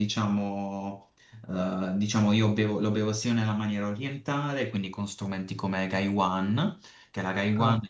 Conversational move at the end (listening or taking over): listening